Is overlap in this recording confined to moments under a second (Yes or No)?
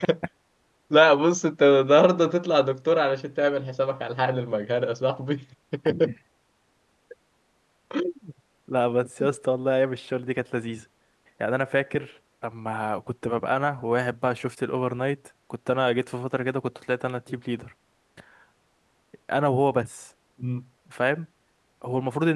Yes